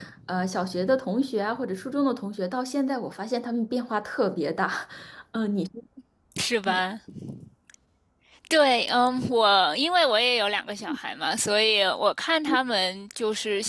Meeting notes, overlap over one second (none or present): none